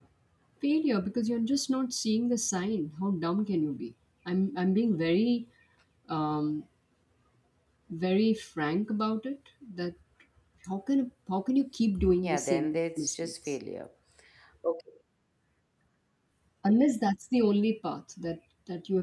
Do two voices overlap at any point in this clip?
Yes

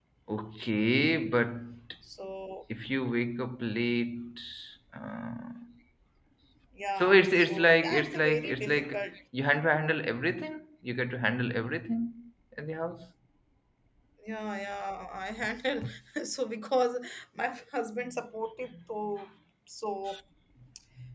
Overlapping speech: Yes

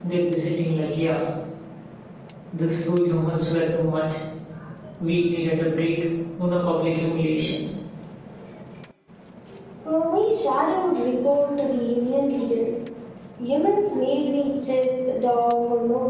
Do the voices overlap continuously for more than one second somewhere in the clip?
No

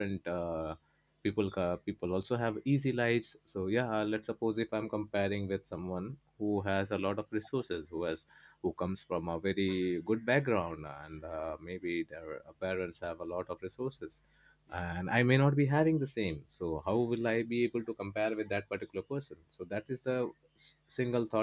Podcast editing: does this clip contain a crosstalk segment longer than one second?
No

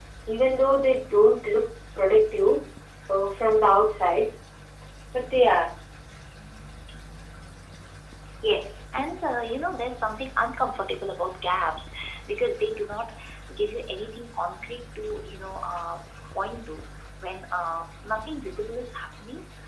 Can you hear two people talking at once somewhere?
No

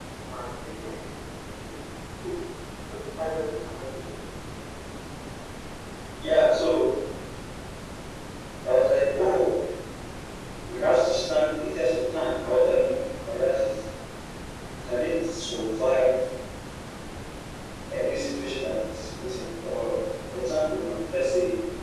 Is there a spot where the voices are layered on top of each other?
No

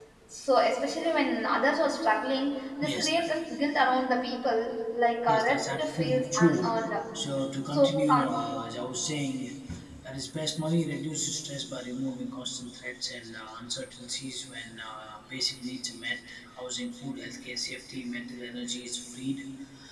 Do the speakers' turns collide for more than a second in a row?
Yes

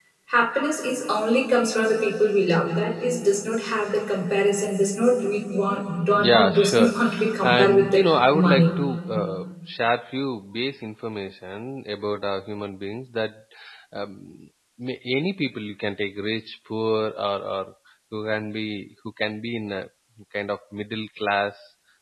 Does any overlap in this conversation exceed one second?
Yes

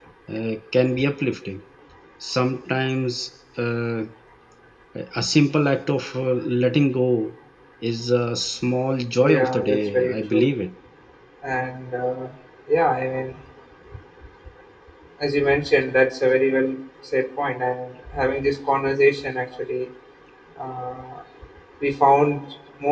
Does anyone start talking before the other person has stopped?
Yes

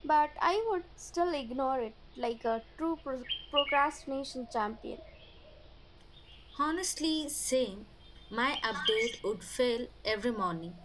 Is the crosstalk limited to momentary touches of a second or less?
Yes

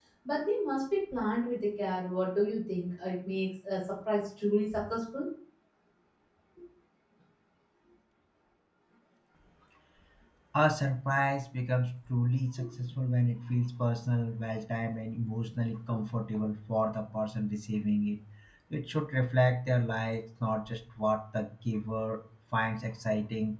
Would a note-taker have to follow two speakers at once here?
No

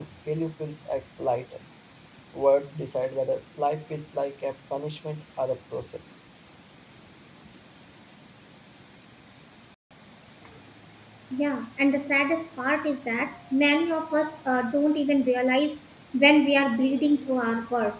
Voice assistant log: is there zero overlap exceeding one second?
Yes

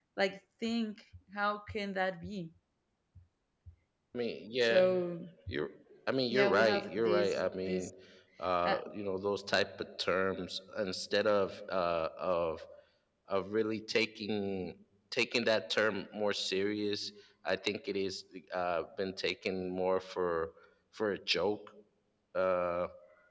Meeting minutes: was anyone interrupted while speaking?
Yes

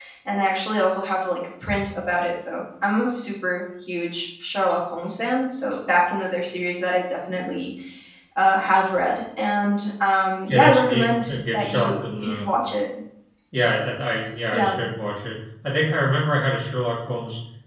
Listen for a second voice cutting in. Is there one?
Yes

